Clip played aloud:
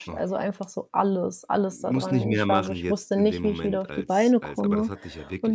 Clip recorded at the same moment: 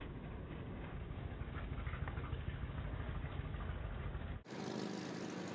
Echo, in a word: none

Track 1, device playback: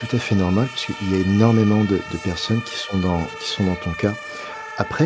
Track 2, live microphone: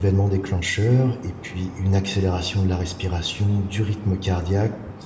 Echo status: none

